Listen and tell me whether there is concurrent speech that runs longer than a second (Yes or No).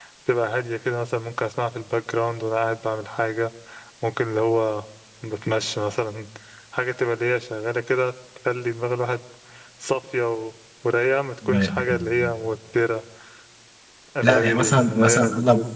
Yes